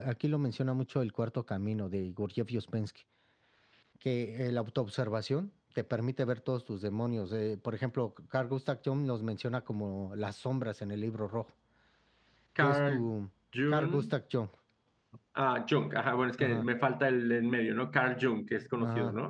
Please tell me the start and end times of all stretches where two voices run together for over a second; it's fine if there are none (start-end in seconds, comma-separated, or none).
none